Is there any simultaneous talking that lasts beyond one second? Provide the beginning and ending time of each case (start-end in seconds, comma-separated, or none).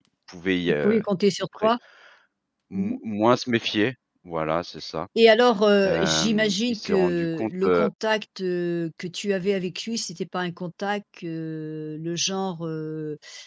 5.8-7.9